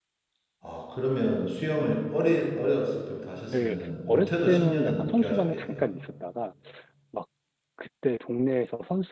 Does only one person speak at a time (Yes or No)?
No